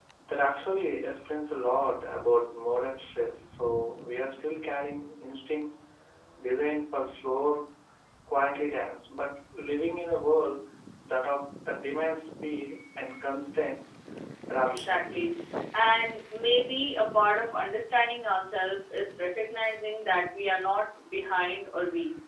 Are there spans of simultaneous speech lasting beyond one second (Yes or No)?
No